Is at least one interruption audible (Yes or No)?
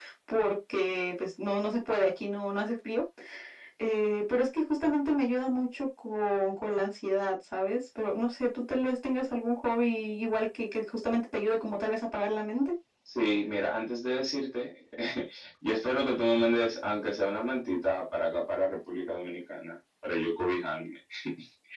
No